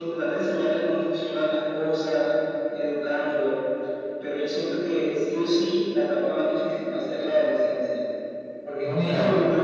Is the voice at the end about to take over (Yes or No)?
No